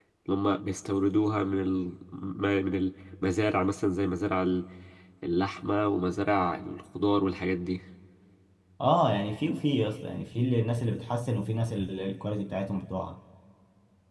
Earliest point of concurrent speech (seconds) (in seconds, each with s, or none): none